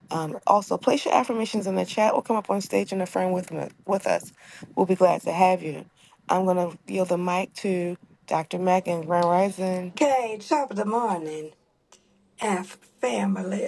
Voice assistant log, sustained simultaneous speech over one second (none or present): none